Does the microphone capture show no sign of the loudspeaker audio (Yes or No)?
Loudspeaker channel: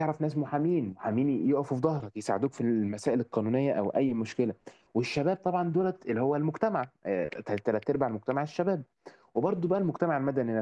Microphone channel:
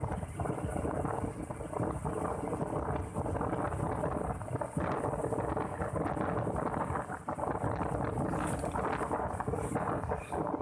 Yes